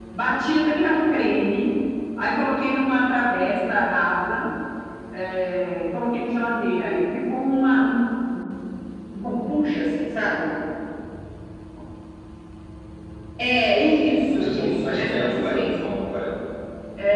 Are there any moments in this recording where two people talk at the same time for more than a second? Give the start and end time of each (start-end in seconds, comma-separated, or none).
14.1-15.9